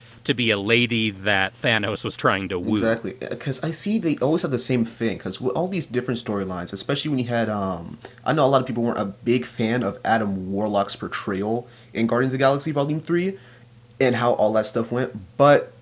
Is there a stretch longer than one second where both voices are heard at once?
No

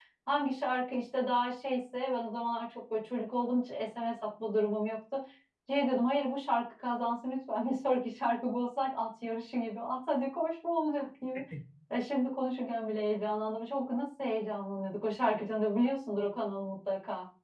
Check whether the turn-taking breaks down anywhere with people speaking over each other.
No

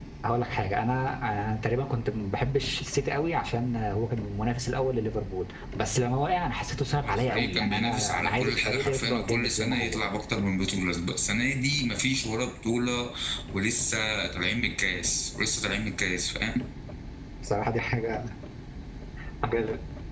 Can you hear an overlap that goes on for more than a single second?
Yes, from 6.9 s

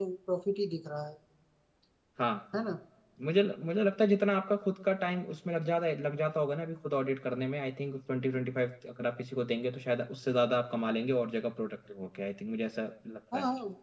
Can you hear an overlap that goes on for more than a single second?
No

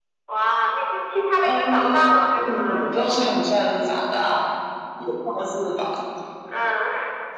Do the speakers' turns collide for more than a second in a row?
Yes, from 1.4 s

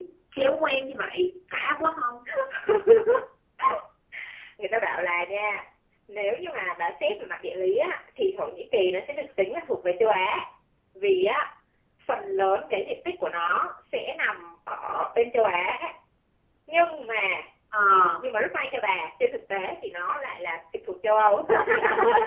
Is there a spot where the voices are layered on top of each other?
No

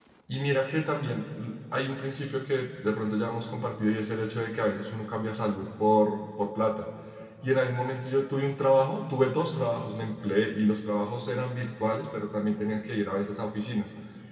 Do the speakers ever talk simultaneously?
No

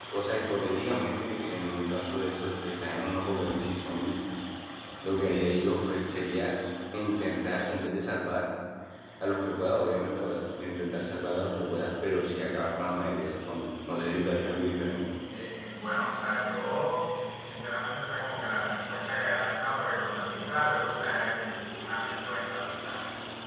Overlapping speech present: No

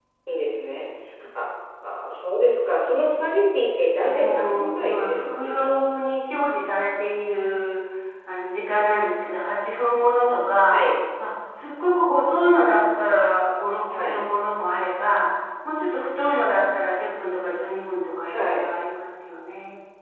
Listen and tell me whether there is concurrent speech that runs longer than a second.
Yes, from 4.0 s

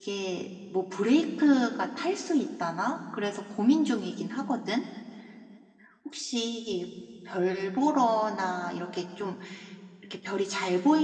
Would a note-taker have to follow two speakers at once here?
No

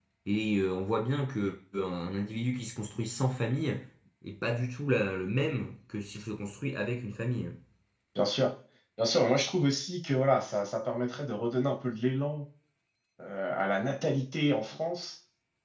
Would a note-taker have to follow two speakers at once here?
No

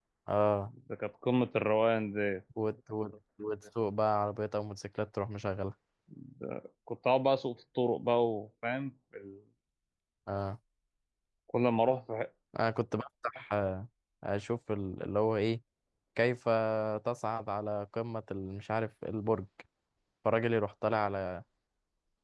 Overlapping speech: No

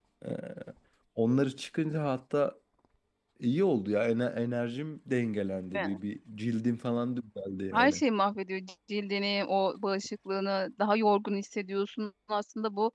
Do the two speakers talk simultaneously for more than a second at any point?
No

